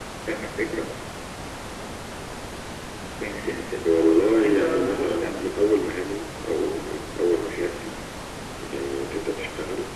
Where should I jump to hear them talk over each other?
3.9 s

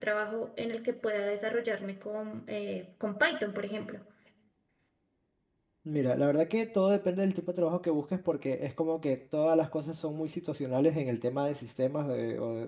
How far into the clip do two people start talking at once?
none

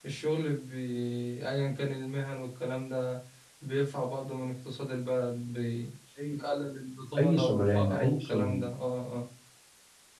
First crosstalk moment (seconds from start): 7.2 s

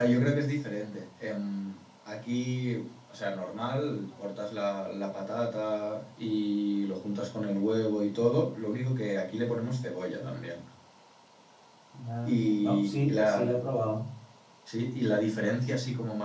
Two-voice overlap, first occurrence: 12.2 s

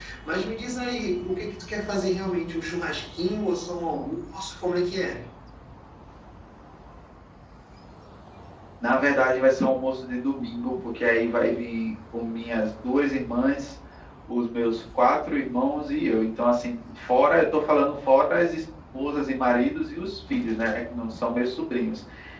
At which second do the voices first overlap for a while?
none

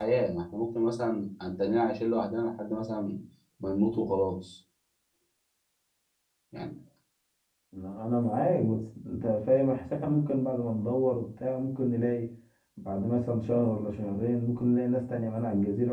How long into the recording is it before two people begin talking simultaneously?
none

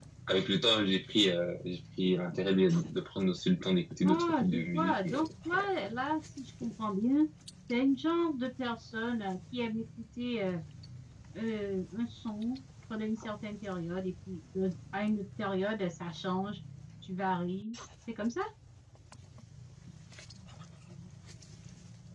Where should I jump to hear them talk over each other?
4.0 s

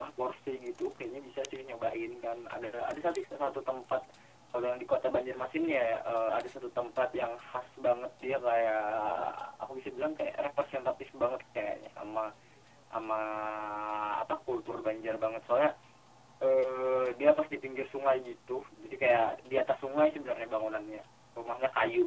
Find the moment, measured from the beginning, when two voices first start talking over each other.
none

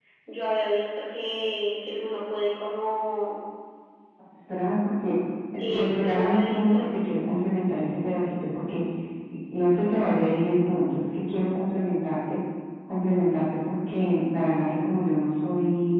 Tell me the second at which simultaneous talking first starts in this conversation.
5.6 s

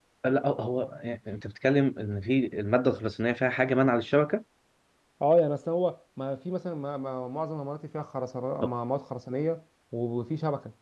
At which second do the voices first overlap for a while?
none

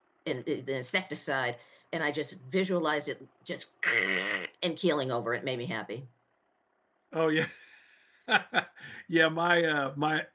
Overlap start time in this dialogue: none

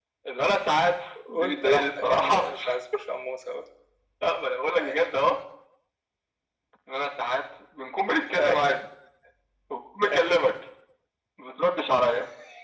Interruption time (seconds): 1.3 s

